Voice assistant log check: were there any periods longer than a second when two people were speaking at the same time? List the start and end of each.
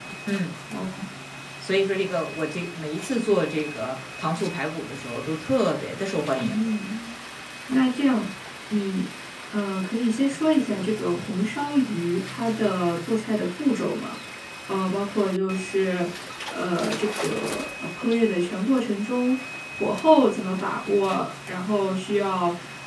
none

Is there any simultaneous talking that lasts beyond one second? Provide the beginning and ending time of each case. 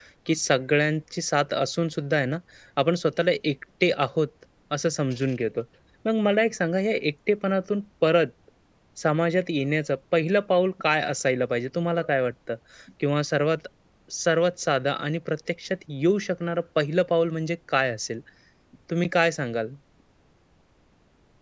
none

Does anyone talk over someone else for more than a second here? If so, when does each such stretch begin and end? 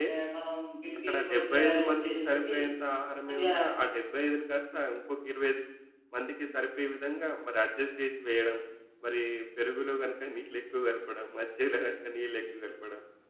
1.1-2.5

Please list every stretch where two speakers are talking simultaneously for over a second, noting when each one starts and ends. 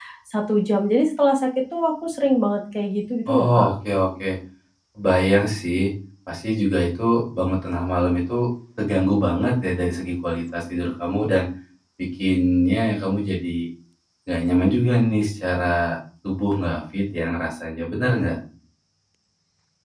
none

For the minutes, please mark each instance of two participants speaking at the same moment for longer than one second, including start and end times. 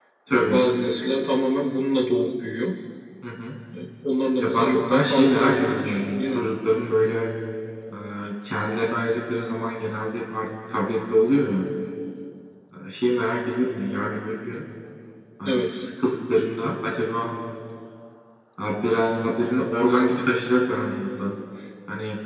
4.4-6.4

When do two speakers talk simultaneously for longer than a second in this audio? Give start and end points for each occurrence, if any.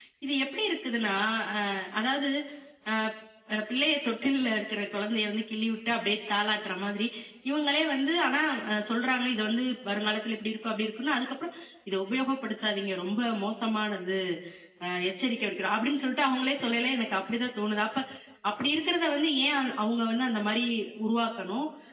none

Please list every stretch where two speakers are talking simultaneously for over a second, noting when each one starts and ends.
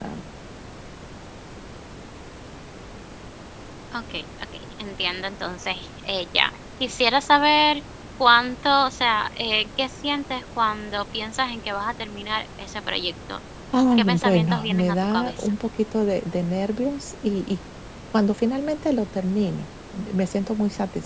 14.2-15.5

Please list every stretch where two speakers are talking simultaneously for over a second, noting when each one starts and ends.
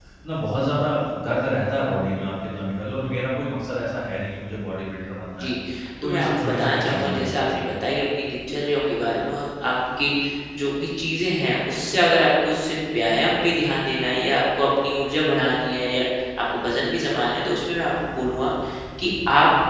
6.0-7.6

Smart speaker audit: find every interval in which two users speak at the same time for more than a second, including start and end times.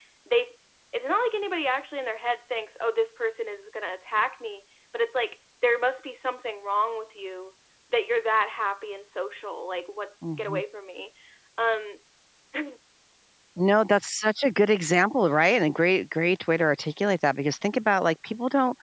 none

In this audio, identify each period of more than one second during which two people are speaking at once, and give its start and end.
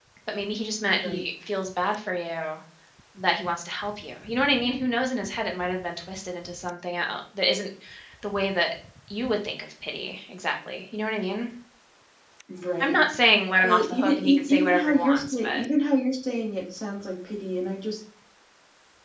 13.6-15.6

